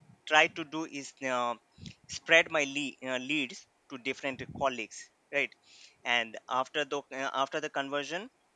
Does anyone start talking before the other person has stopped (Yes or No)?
No